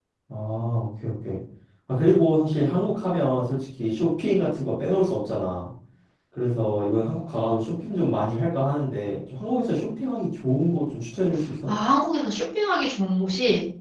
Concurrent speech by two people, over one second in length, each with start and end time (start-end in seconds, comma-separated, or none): none